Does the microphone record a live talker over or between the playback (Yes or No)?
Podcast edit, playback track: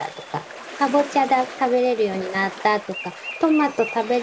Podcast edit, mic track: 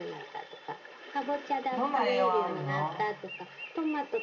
Yes